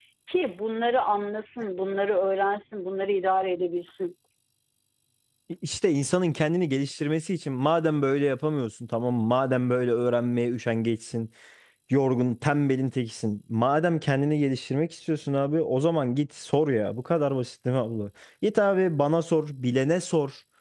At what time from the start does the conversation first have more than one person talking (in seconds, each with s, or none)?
none